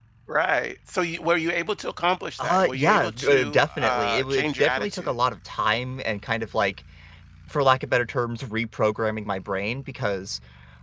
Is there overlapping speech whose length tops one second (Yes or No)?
Yes